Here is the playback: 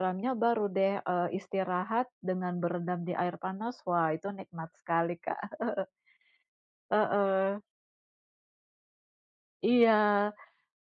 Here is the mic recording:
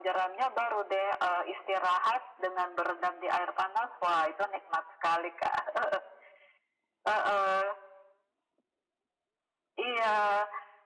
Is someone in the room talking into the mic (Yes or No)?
No